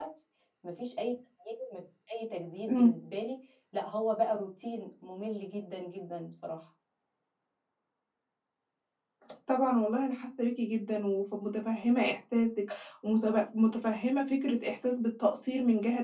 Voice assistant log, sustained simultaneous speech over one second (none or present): none